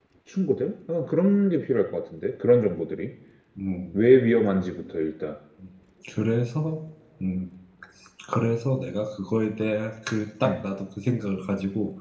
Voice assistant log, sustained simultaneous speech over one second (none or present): none